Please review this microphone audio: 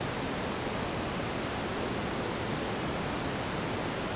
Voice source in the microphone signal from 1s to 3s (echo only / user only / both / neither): neither